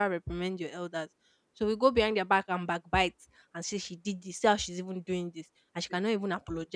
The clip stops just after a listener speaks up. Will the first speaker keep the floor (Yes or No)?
Yes